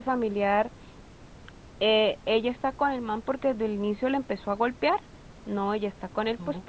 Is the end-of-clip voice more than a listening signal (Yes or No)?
No